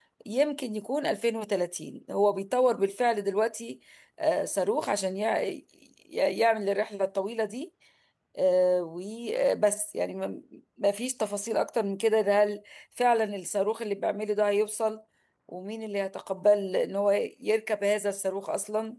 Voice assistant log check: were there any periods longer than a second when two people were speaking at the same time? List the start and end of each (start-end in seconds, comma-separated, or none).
none